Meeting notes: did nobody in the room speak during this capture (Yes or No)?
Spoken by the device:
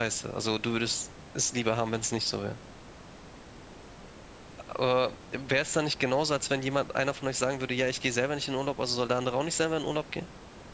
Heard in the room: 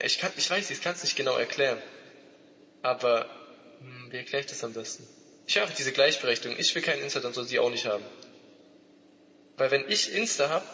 No